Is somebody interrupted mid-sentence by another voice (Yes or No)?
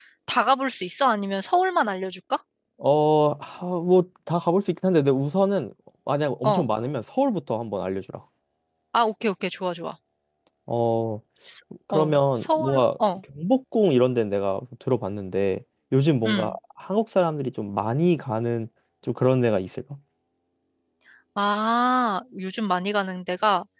Yes